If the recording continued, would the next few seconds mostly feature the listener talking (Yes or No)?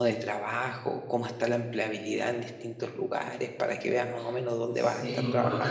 Yes